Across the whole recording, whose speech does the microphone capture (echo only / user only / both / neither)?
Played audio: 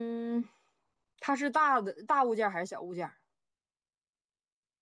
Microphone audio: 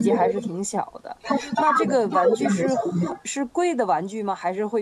both